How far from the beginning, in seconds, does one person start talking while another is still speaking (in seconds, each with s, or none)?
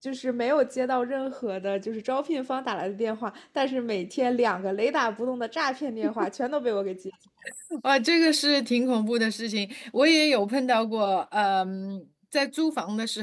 none